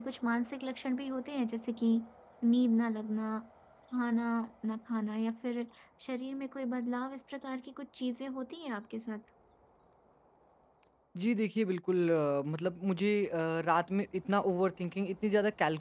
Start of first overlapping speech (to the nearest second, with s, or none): none